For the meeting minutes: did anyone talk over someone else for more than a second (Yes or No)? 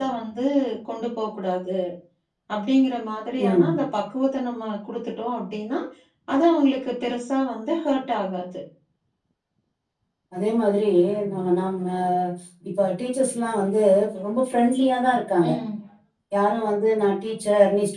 No